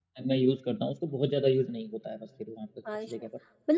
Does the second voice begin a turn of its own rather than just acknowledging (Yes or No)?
Yes